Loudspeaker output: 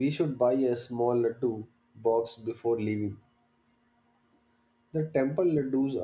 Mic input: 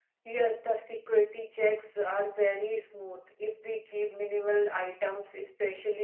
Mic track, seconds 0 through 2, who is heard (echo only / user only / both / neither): user only